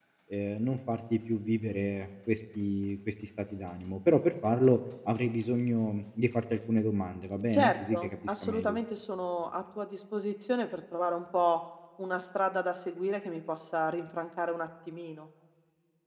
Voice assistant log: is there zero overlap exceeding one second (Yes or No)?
No